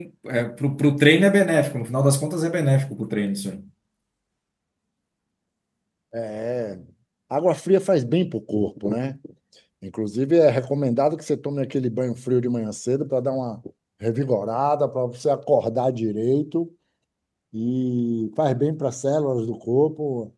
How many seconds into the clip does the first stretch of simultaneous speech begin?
none

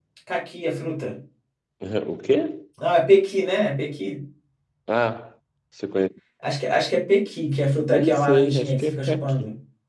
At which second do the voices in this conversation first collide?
8 s

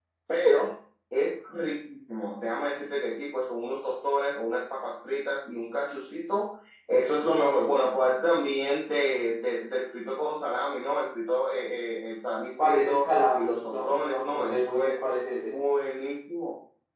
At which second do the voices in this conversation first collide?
13 s

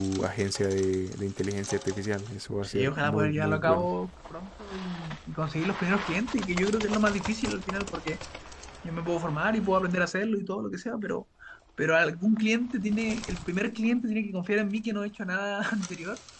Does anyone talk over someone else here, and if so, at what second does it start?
3 s

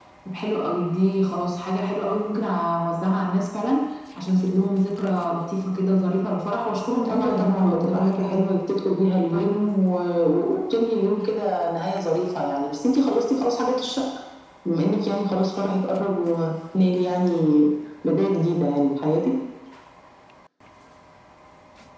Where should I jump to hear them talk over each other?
7 s

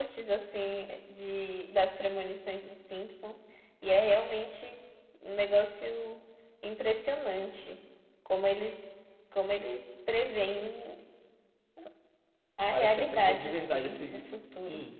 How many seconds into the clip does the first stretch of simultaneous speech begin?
13 s

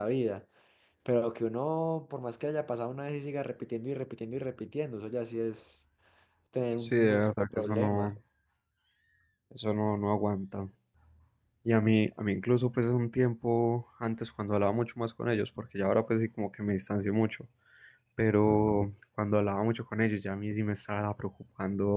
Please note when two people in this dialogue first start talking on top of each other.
7 s

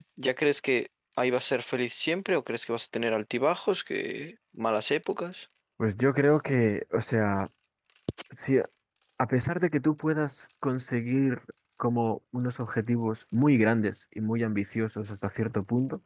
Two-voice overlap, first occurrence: none

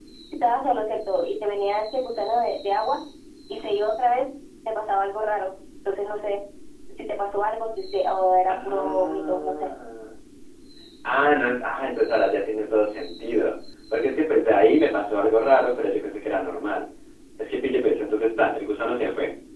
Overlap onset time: 8 s

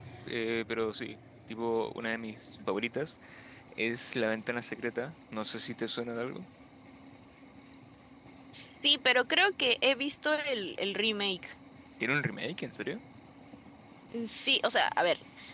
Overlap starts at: none

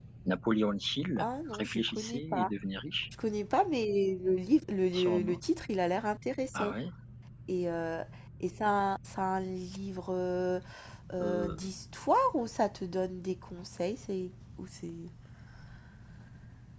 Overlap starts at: 1 s

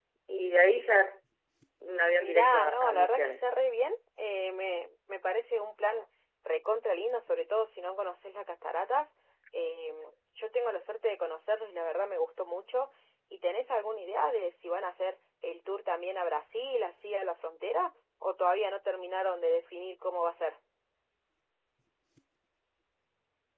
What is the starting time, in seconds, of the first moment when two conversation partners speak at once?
2 s

